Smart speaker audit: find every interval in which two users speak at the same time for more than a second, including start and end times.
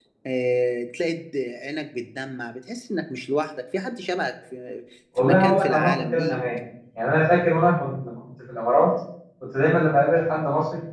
5.2-6.4

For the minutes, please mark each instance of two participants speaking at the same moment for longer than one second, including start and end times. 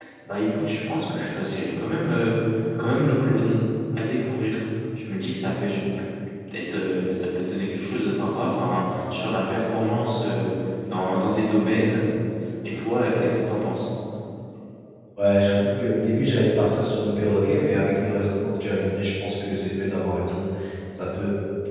none

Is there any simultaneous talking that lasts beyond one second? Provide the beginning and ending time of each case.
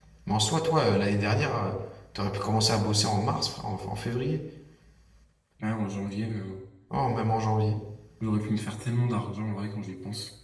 none

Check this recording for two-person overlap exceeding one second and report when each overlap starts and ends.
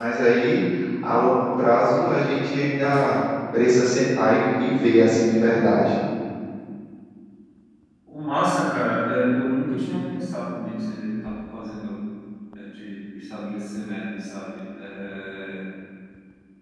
none

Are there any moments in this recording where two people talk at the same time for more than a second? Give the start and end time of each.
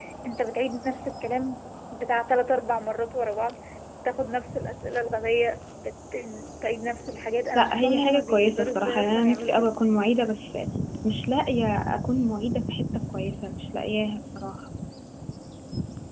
7.5-9.7

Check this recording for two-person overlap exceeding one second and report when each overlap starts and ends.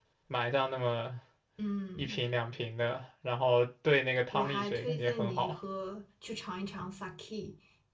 4.3-5.6

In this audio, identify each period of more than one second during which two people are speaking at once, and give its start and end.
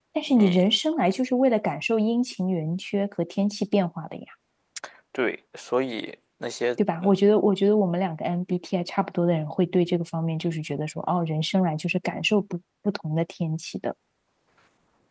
none

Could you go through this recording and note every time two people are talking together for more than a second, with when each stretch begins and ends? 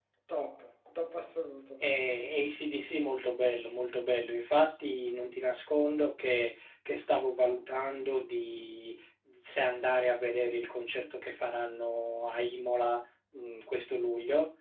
none

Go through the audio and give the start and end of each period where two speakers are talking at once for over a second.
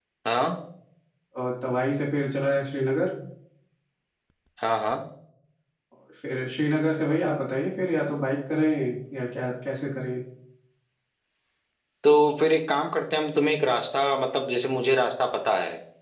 none

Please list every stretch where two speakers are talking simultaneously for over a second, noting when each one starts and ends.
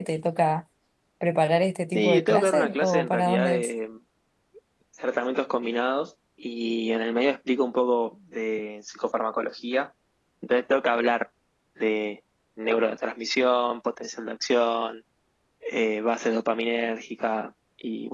1.9-3.7

